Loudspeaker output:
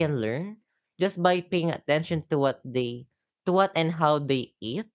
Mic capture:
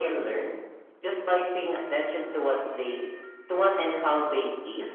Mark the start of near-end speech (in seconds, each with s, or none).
none